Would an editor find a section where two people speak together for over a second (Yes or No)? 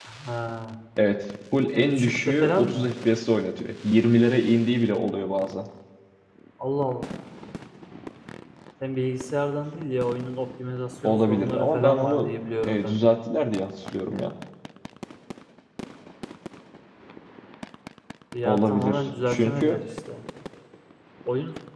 Yes